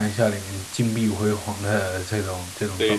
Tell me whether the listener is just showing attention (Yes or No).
No